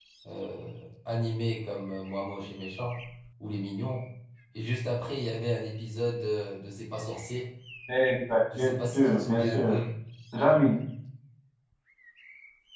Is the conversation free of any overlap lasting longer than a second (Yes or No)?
No